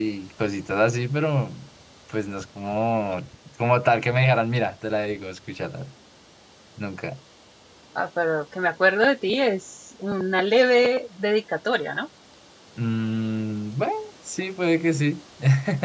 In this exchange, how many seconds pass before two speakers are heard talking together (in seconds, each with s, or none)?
none